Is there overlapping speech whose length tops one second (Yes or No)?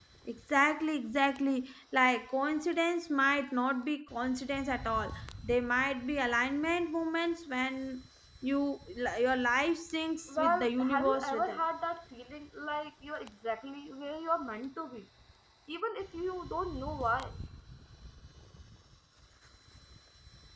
Yes